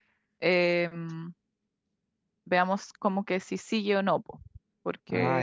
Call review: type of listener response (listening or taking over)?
listening